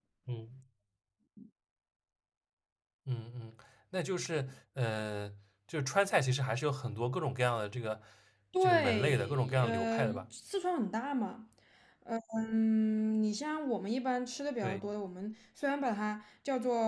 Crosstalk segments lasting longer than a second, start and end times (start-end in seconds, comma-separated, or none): 8.6-10.2